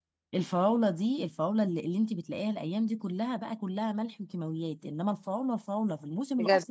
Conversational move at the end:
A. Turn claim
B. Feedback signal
B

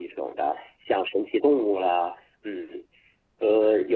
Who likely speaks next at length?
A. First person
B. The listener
A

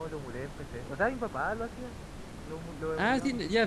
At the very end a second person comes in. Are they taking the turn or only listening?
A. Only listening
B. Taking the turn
B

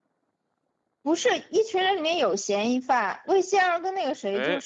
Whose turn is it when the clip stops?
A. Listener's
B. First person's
B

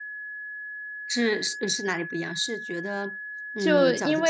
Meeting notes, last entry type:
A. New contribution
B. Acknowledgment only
A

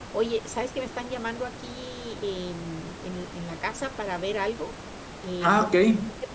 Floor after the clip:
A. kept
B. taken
A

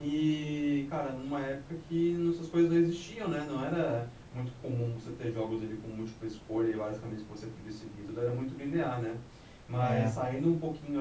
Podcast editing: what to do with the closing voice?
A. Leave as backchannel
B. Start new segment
A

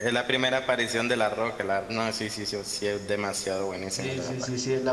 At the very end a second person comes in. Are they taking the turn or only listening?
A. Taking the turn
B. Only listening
A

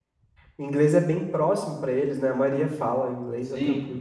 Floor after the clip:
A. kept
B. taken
B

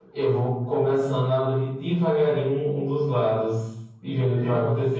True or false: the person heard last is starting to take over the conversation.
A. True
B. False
A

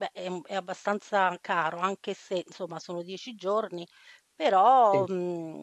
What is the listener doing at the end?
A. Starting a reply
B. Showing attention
B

